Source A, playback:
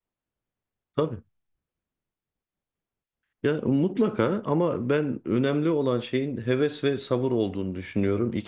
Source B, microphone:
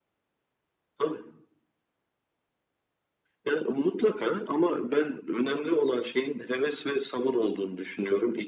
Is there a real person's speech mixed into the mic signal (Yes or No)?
No